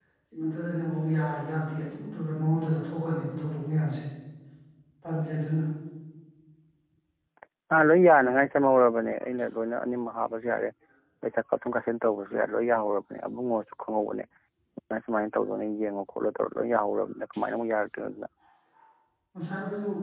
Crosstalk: none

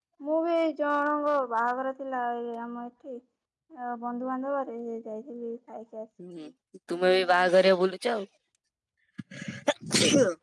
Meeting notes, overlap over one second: none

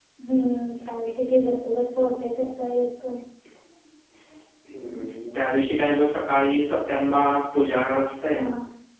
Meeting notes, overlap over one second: none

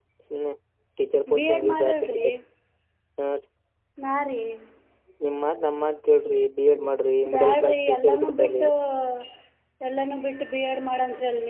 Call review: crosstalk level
present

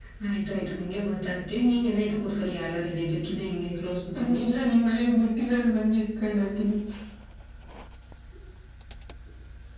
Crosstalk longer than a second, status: none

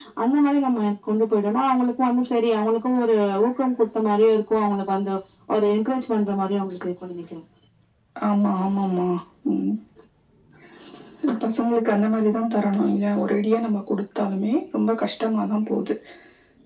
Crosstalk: none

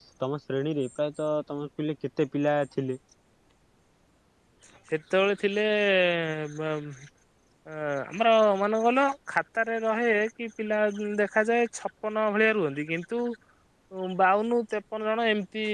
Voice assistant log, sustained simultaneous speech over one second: none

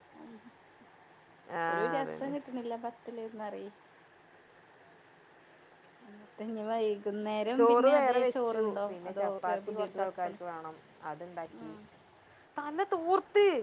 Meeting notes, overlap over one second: present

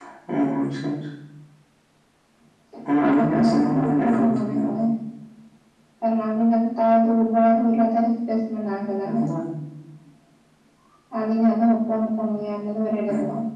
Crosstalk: present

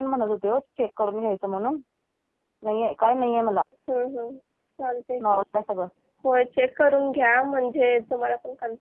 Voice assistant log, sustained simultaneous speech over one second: none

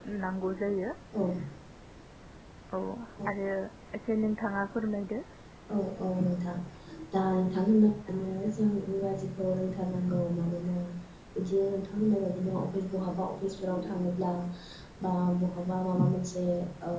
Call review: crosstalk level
none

